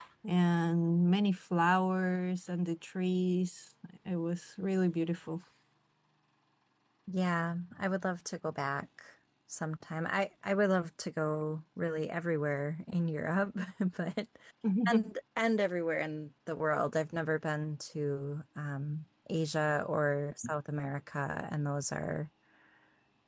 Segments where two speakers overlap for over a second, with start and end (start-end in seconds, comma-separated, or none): none